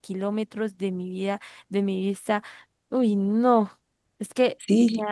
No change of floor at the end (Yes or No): No